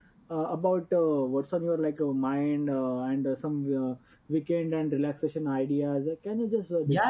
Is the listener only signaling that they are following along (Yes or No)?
No